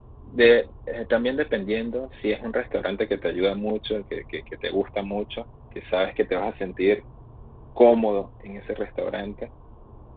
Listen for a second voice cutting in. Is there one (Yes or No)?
No